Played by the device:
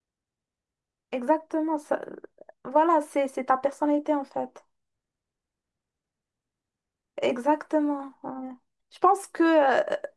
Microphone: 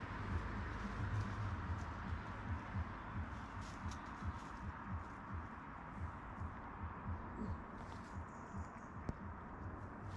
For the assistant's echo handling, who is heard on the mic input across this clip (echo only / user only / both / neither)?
neither